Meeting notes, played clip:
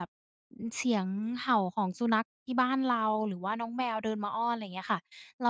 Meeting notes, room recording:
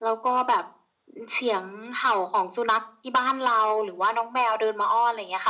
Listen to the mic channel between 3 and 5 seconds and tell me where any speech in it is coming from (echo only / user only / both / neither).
echo only